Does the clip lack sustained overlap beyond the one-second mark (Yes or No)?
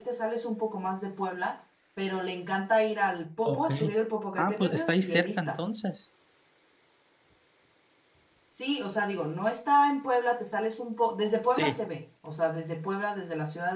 No